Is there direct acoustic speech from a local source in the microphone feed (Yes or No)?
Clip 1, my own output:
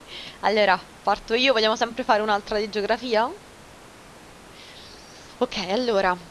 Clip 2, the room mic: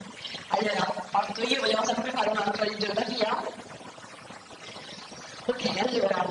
No